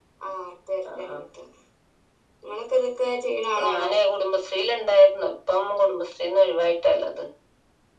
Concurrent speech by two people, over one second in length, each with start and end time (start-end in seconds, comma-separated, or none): none